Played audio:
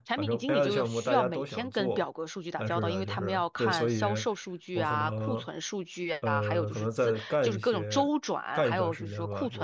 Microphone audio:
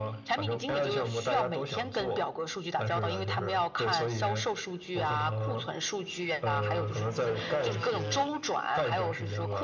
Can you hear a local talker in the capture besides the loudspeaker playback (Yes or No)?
No